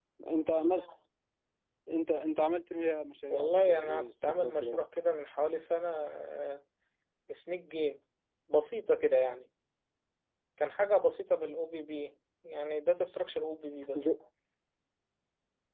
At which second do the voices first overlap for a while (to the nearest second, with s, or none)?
3 s